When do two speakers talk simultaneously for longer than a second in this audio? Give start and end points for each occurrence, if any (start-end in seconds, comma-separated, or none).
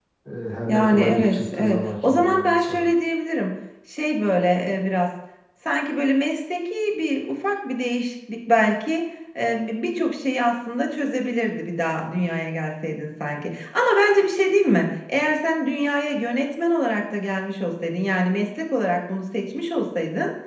0.7-2.9